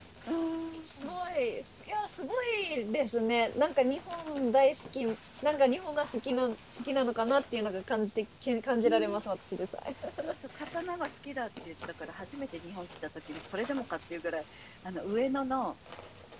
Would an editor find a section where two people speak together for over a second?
No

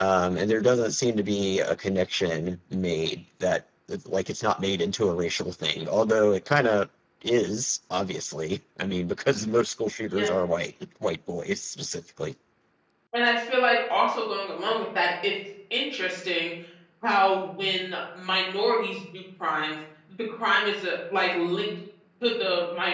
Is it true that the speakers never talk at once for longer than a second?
Yes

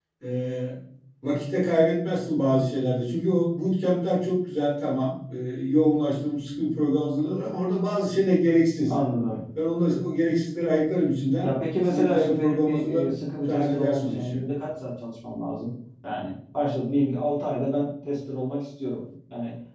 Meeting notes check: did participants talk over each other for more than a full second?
Yes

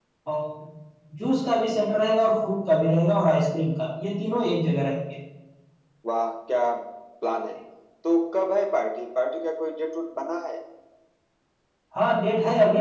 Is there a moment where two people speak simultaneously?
No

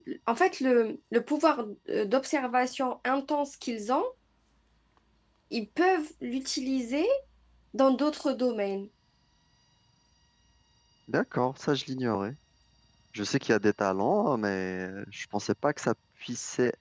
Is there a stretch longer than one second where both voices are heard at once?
No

